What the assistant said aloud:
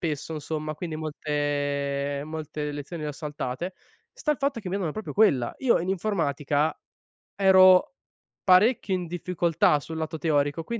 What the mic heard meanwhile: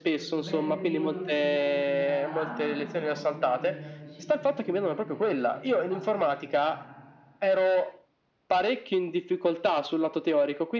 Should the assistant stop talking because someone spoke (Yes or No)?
Yes